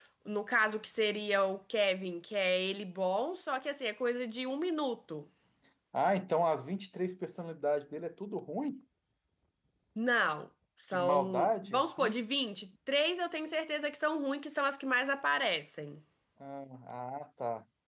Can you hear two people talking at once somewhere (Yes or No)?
Yes